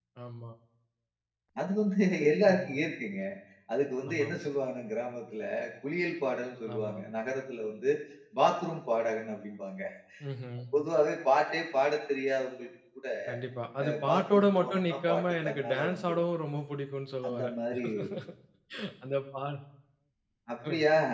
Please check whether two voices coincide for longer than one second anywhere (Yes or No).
Yes